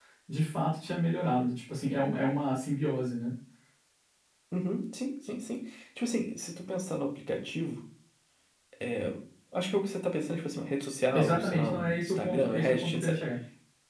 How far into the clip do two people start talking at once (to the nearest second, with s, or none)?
11 s